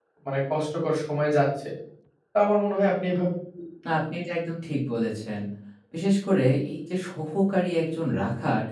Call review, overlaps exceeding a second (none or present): none